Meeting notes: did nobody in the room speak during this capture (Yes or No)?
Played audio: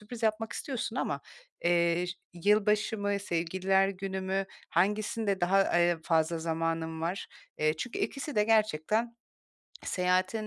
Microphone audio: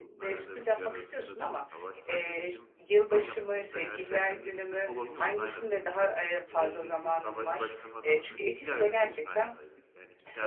No